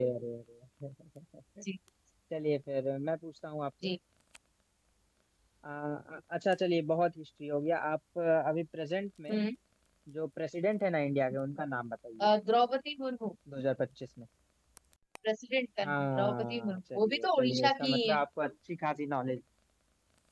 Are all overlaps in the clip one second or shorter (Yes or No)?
No